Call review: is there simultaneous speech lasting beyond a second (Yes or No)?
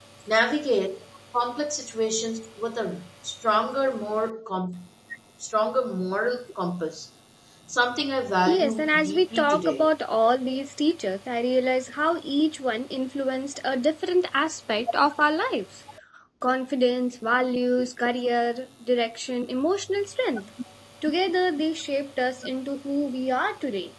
Yes